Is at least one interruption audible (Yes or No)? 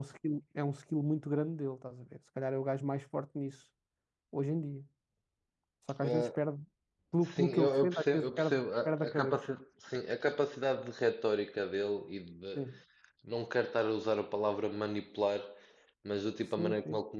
Yes